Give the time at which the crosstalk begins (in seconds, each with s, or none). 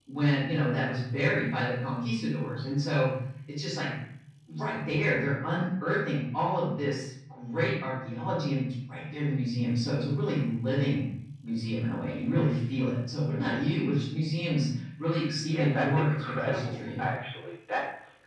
15.5 s